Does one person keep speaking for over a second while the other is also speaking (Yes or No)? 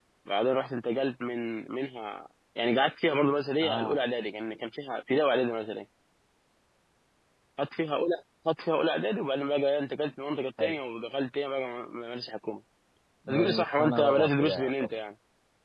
Yes